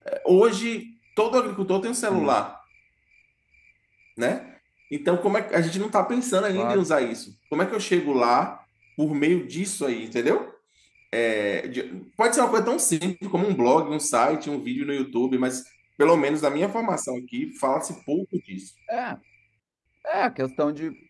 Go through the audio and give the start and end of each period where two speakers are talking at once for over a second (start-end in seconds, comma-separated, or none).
none